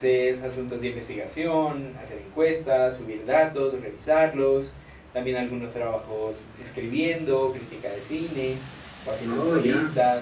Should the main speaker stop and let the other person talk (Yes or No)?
No